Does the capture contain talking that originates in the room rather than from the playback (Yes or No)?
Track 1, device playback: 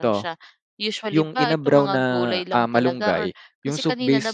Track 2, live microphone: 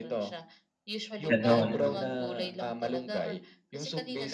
Yes